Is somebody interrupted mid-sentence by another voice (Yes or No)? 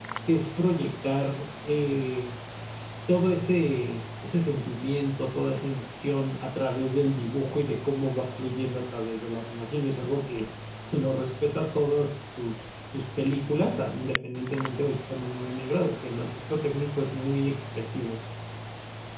No